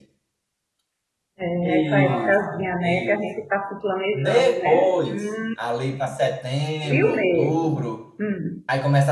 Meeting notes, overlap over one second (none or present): present